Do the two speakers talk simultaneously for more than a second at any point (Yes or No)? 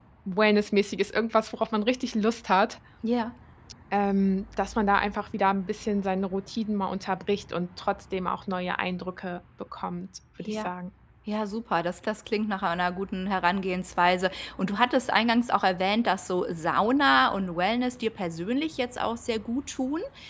No